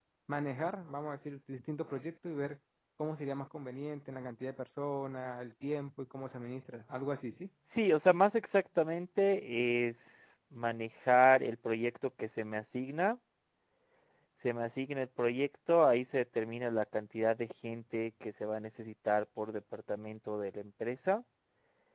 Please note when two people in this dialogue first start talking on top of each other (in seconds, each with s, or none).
none